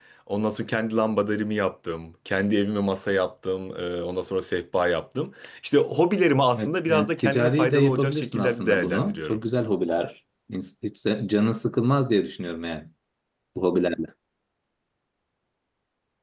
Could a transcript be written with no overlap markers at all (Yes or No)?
No